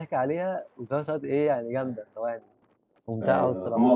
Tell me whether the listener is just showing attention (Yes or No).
No